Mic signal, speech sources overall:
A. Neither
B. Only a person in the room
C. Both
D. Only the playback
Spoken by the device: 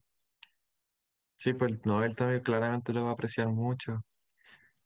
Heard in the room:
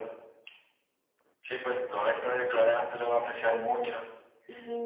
C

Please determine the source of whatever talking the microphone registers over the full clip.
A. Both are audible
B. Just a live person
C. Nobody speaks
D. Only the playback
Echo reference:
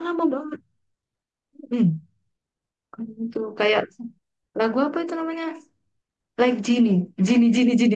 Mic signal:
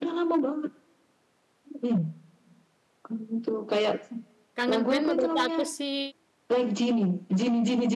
A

